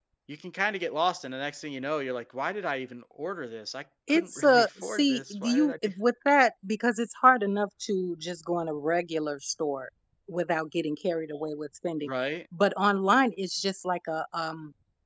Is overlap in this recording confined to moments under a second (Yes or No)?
No